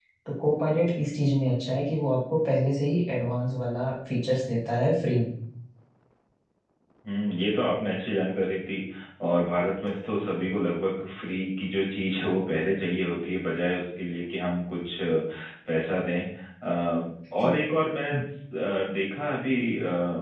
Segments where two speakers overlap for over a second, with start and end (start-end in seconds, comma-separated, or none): none